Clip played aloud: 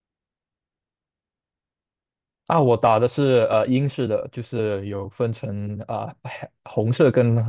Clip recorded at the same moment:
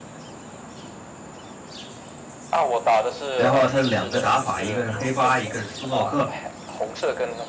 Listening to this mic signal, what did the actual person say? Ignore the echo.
然后它的两个打法，一个是黑八，一个是斯诺克。

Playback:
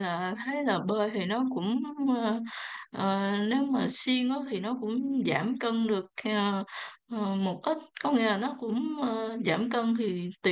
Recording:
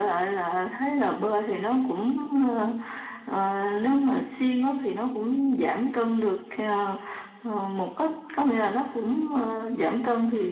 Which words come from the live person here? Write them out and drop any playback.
none

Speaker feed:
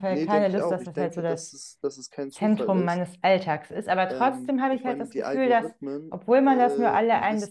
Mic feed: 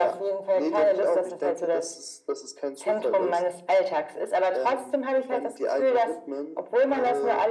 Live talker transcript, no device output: none

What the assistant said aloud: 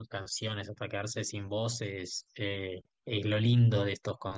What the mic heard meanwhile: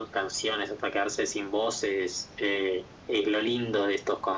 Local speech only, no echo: none

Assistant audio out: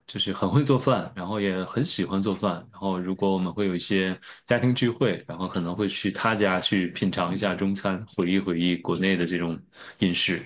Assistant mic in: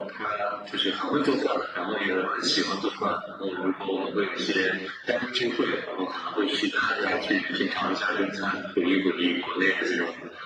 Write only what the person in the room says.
none

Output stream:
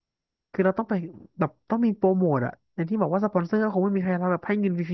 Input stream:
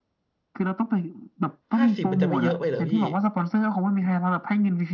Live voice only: ห้าสิบมันจะไม่เยอะไปเหรอพี่

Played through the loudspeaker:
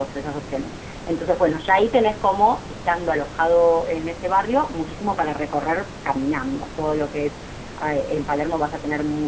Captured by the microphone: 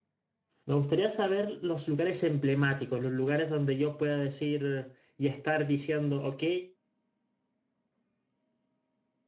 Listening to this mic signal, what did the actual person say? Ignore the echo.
Me gustaría saber los lugares emblemáticos, los lugares donde yo pueda decir y estar diciendo, ok,

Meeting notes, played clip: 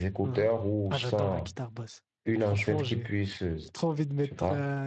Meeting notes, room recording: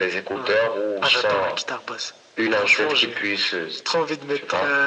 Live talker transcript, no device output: none

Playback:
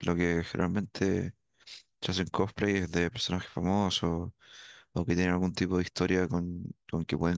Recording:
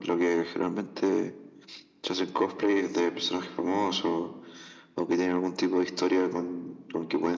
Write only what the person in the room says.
none

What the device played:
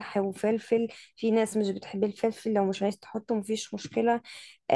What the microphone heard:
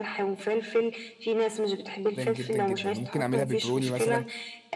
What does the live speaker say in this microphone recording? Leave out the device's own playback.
جدا جدا ممكن اعملها بيبروني مثلا

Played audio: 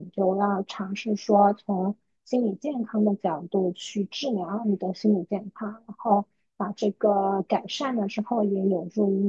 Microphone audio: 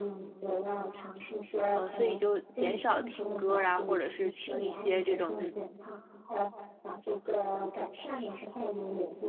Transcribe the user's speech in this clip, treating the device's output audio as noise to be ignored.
嗯，呃所以就减少听歌啊，或者是听一些这种

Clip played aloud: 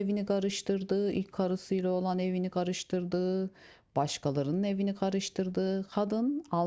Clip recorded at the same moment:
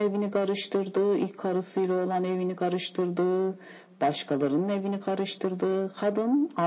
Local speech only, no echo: none

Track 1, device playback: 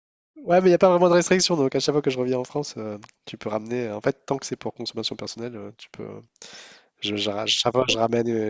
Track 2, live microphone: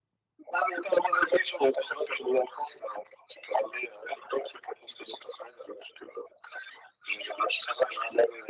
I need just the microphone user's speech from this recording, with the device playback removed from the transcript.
none

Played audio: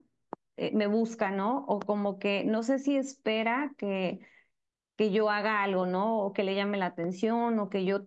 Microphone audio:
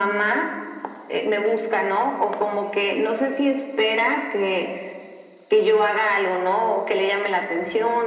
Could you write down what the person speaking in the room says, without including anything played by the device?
none

